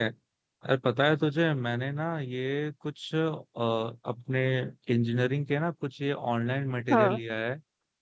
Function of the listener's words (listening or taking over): listening